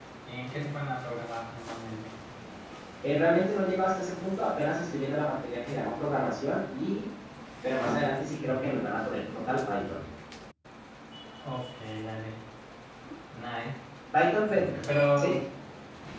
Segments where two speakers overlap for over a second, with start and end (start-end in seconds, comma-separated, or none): none